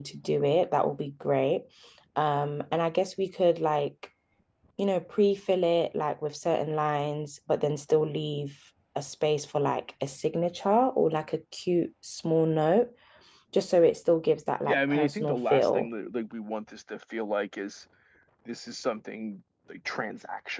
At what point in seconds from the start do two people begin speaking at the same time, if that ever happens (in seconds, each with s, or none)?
14.7 s